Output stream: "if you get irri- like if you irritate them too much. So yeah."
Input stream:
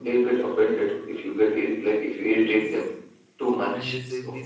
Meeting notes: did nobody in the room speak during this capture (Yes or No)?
No